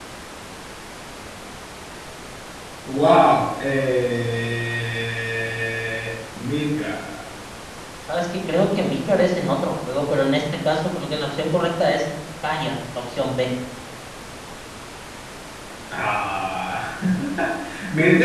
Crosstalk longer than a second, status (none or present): none